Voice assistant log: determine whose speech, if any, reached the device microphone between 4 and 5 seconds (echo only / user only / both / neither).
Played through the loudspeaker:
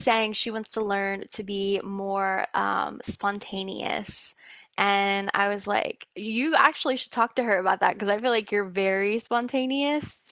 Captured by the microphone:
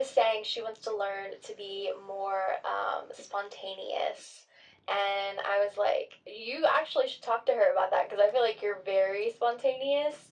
echo only